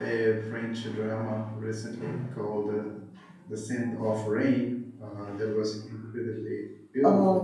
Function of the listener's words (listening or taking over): taking over